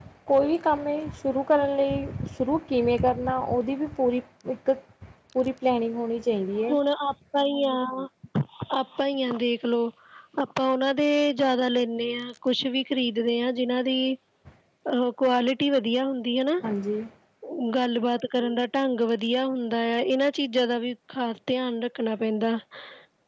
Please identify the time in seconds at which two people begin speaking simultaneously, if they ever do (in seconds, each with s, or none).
none